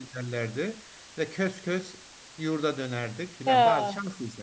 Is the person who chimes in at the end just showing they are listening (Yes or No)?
Yes